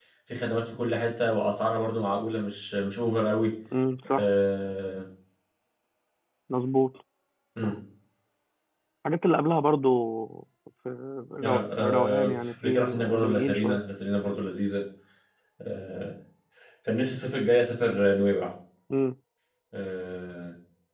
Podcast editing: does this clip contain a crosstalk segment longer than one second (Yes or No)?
Yes